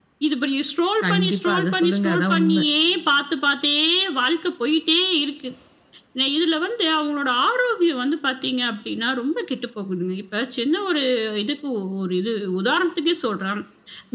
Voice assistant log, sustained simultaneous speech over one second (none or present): present